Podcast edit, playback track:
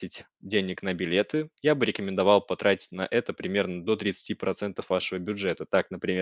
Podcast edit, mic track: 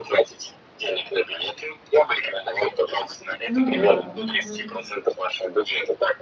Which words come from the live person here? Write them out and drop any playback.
Ну да. мгм.

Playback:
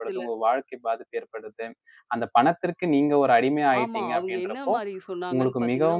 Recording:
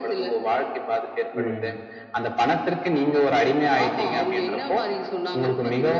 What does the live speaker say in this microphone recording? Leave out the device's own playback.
ம்.

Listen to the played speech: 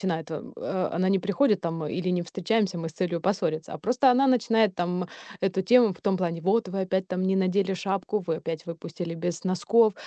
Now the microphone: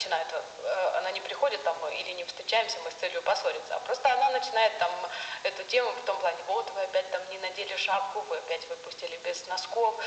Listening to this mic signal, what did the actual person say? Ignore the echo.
none

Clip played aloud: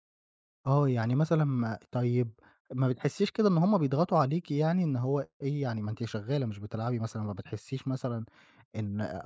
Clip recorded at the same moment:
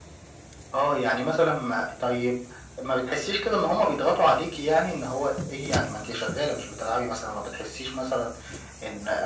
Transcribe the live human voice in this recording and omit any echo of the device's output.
none

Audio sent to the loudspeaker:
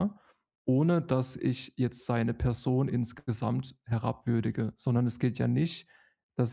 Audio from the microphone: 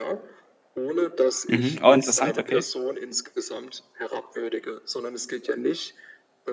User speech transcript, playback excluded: Mhm. Oh, interessant, okay.

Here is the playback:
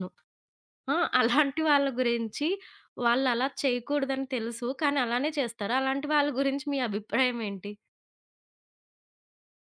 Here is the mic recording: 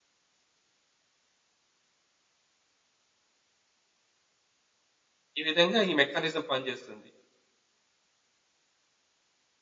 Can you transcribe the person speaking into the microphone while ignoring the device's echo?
ఈ విధంగా ఈ మెకానిజం పనిచేస్తుంది.

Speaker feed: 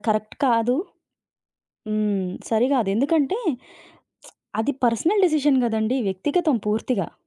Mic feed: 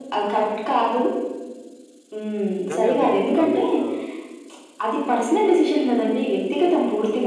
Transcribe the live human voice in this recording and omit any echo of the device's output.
కానీ అది దాన్ని ఆహ్,

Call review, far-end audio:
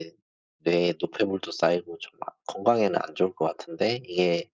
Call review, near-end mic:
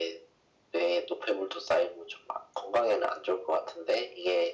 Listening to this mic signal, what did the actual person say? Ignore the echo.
none

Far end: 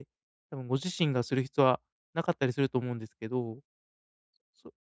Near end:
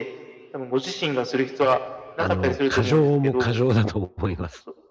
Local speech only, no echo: あの、過剰も過剰だと思います。

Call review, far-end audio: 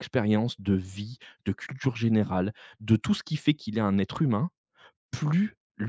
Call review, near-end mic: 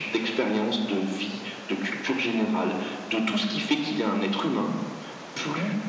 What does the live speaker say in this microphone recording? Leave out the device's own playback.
none

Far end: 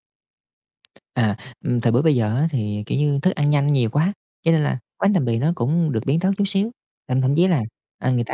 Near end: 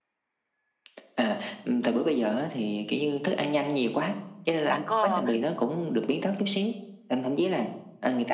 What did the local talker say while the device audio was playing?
bạn có

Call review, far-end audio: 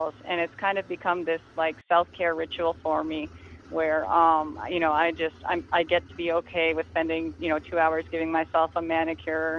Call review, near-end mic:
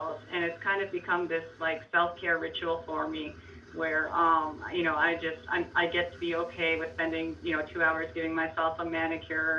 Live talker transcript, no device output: none

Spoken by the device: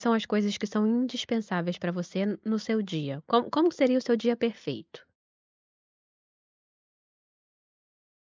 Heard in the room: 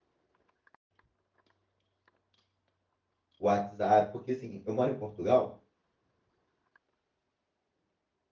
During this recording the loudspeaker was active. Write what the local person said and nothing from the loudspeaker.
WhatsApp, porque, assim, eu moro em Portugal,

